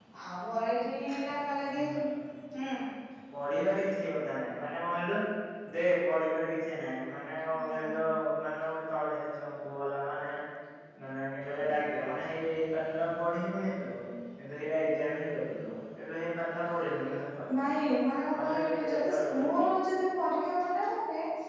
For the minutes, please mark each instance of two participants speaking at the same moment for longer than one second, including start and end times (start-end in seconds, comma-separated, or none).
18.4-19.6